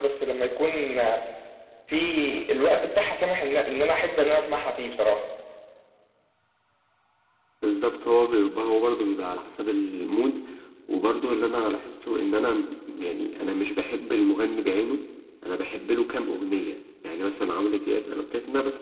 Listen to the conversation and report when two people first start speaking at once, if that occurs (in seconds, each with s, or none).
none